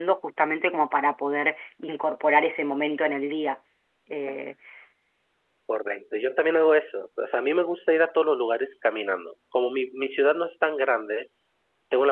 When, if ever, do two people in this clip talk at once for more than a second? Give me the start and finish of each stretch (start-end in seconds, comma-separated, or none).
none